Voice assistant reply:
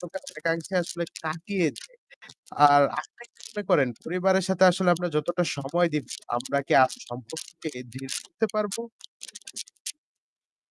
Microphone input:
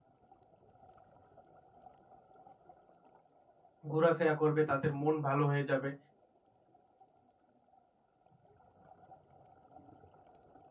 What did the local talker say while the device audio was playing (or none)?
ঘোরাফেরা করবে তাদের মন ভালো হয়ে যাবে,